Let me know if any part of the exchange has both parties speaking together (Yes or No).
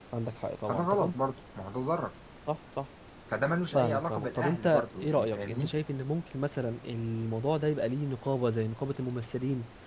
Yes